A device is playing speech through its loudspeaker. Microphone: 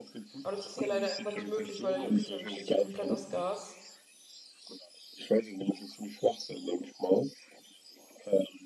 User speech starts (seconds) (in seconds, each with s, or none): 0.4 s